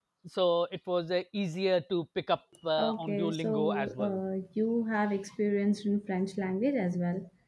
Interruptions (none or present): present